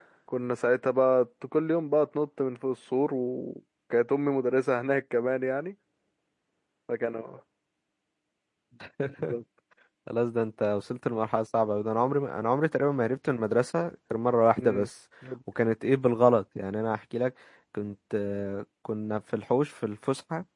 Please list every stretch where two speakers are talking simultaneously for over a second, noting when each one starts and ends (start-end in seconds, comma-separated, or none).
none